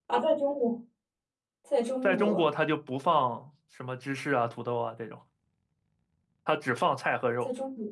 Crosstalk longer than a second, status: none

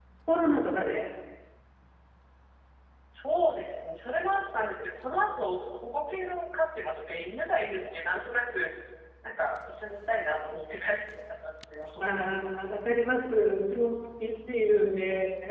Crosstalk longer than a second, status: none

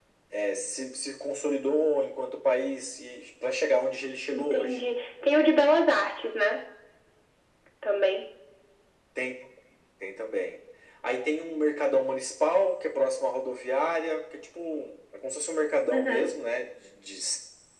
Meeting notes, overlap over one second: none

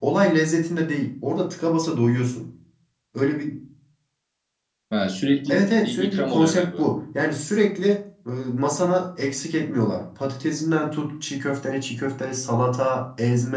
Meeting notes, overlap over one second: present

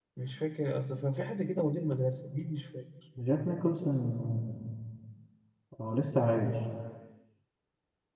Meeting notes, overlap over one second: none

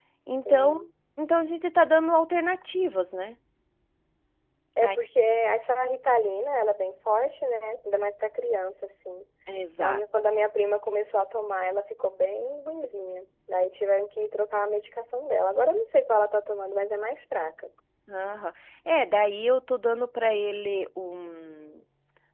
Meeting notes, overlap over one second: none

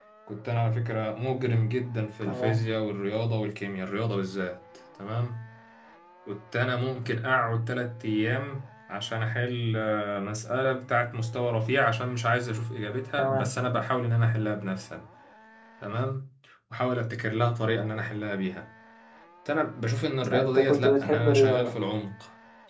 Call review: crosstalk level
present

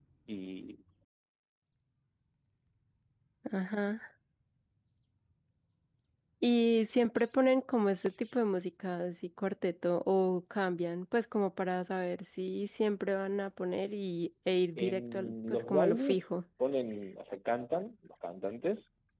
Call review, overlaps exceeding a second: present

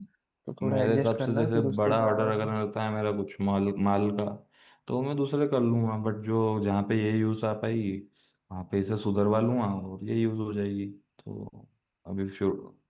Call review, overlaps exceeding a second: present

